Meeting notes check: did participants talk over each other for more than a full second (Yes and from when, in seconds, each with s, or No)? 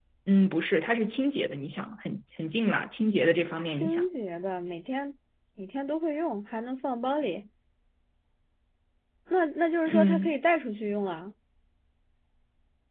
No